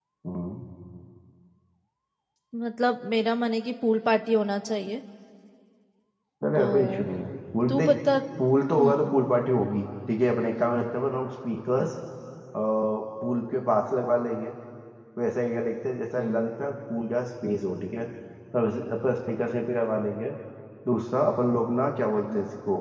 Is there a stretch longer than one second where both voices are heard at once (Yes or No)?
No